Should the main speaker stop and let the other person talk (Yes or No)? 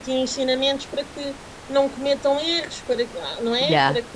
No